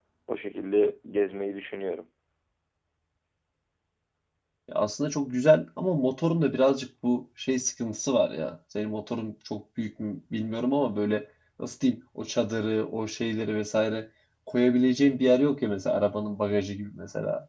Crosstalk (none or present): none